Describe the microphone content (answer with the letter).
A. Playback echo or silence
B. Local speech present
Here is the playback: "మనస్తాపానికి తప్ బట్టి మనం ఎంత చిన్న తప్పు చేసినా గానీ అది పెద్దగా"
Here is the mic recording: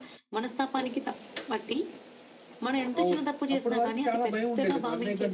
B